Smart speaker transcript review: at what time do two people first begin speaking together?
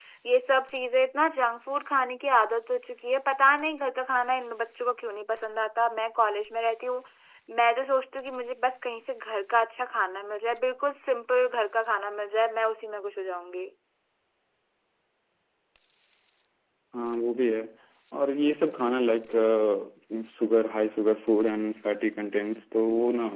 none

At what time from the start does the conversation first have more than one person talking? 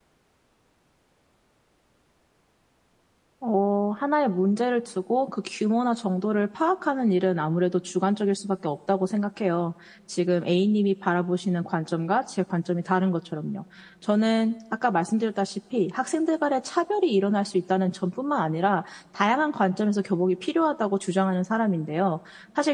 none

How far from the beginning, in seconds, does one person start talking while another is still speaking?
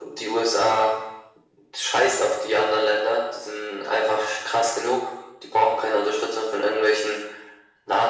none

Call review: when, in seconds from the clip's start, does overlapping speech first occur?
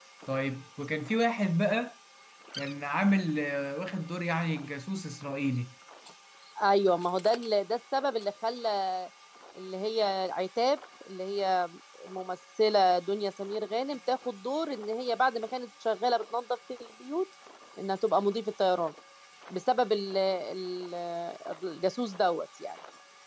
none

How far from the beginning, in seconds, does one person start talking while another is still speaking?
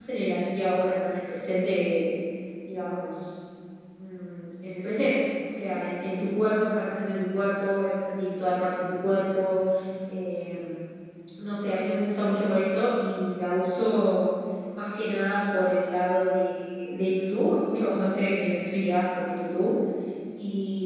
none

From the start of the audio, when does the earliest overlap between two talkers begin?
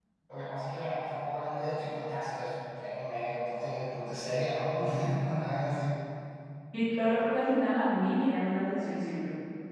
none

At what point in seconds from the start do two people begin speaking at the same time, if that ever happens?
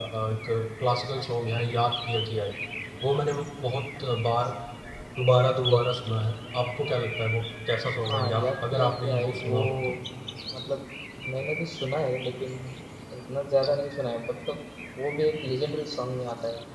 8 s

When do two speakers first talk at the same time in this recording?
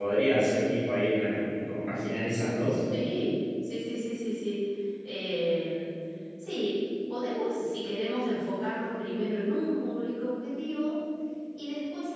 none

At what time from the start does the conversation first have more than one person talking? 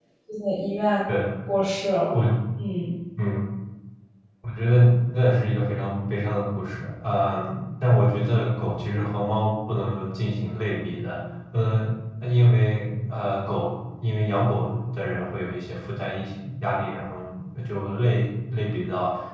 none

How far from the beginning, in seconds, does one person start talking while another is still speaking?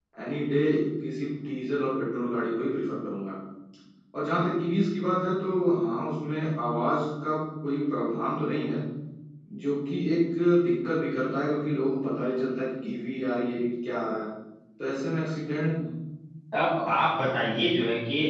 none

